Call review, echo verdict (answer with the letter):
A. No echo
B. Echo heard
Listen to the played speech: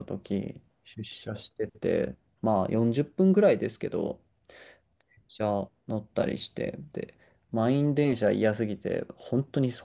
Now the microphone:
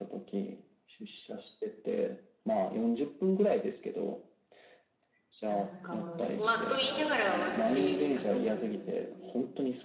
B